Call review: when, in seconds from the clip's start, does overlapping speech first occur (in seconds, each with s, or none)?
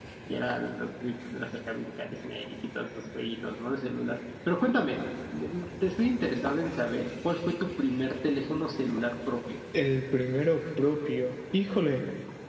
none